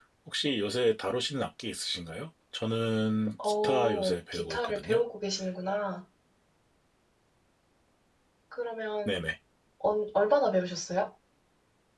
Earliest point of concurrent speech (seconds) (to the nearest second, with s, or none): 3 s